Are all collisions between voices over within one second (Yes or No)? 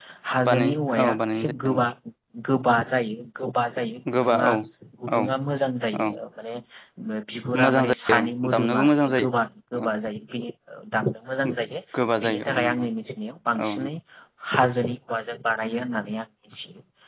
No